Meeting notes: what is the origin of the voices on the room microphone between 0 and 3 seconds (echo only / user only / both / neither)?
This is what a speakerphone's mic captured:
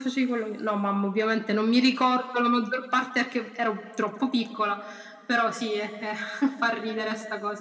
echo only